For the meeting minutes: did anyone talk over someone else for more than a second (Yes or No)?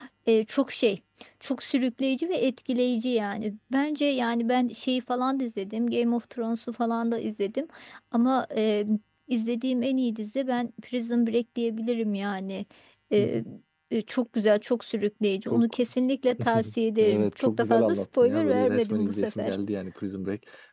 Yes